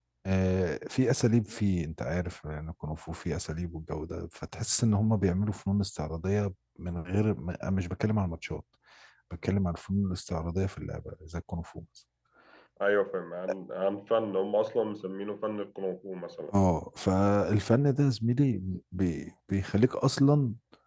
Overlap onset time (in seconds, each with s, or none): none